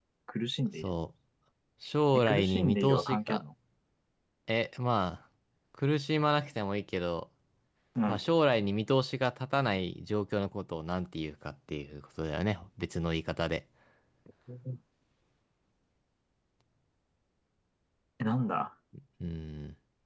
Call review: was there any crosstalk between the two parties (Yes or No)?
Yes